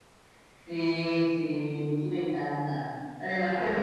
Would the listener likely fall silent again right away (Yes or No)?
Yes